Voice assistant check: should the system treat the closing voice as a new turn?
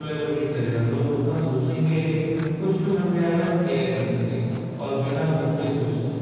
Yes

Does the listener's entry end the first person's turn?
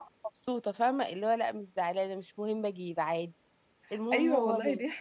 Yes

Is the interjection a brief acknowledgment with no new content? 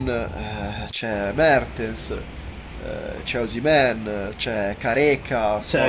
No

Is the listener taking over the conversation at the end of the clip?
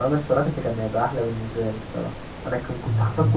No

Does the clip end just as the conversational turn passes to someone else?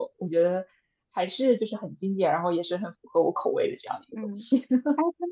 Yes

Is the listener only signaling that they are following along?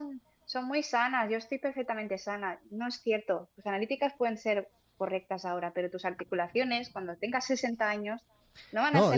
No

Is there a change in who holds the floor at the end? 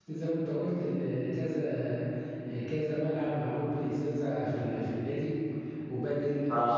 No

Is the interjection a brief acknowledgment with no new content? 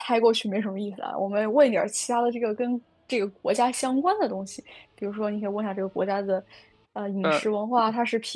Yes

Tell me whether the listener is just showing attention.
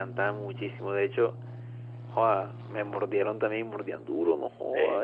Yes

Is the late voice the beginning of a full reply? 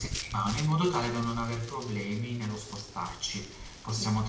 No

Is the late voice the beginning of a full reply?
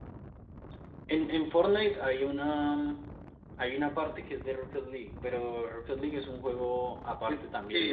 Yes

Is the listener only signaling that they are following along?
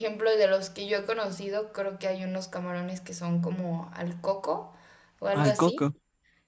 Yes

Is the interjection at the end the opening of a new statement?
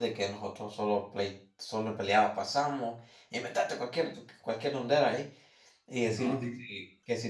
No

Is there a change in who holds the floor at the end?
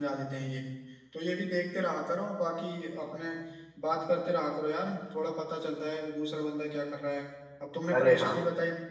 No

